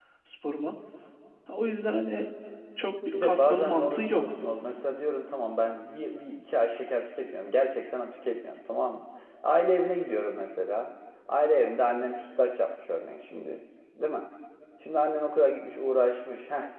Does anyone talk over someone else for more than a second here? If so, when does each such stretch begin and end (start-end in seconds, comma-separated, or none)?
3.1-4.3